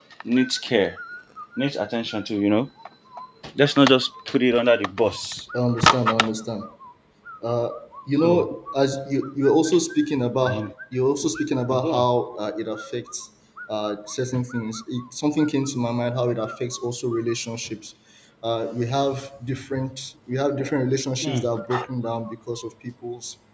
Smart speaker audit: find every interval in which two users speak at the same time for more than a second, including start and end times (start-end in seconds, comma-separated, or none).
none